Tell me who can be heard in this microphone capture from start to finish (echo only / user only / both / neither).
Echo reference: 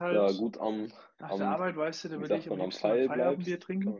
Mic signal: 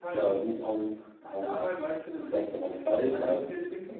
echo only